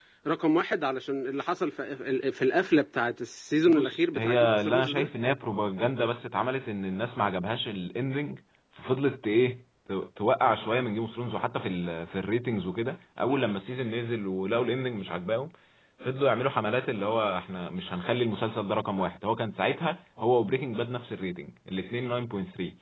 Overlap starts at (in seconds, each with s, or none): 3.7 s